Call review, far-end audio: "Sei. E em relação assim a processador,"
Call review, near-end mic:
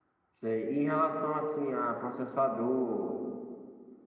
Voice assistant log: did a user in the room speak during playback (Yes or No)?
No